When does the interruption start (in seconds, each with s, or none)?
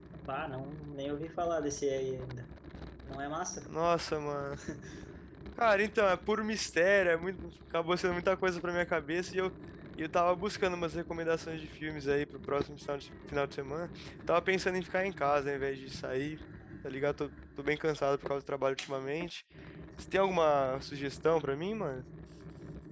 none